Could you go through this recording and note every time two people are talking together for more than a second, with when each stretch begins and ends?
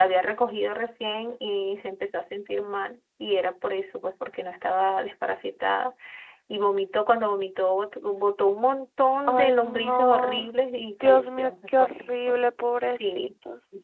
9.3-10.5, 11.0-12.4

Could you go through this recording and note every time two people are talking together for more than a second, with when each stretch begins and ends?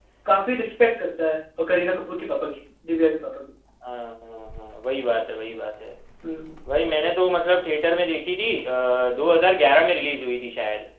none

